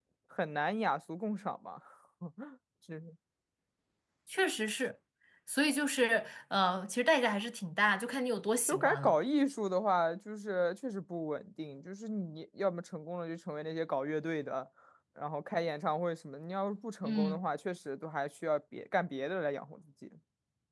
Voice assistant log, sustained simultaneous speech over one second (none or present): none